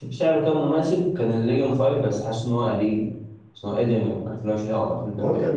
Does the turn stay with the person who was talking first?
No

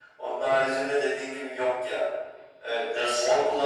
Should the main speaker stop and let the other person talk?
No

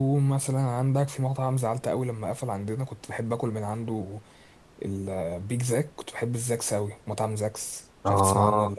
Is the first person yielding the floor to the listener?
Yes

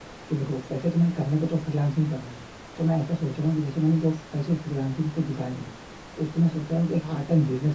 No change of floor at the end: Yes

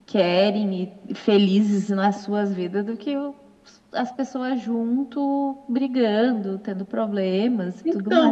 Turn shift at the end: Yes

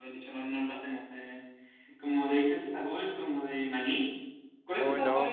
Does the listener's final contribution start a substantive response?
Yes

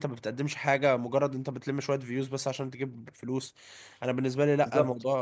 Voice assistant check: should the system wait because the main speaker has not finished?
No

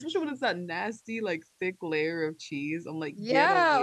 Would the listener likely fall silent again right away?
No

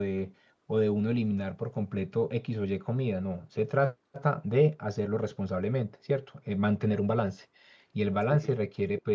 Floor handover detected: No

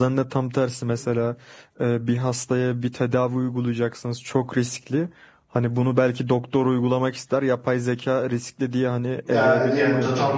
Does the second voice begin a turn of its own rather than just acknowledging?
Yes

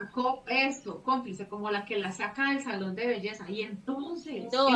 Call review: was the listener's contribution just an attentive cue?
No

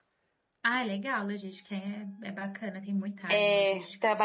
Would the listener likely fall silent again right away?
No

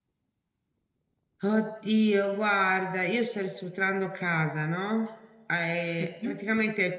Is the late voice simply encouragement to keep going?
Yes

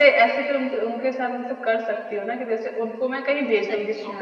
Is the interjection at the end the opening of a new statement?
No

